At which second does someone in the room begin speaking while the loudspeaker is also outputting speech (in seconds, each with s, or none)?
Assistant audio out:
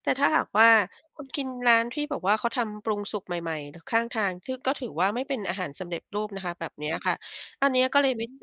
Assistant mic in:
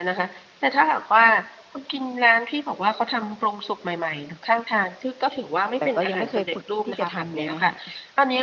5.8 s